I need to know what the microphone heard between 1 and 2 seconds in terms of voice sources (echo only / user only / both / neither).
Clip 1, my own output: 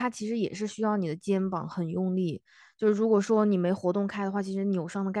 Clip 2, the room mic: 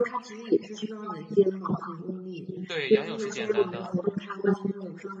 echo only